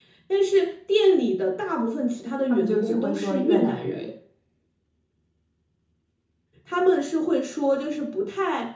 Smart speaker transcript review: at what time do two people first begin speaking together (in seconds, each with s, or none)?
2.5 s